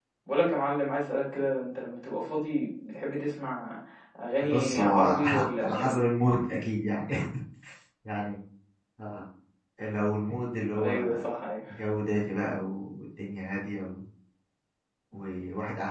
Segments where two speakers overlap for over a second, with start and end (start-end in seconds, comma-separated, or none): 4.4-5.9